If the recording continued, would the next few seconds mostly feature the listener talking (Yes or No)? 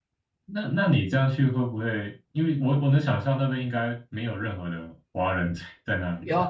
Yes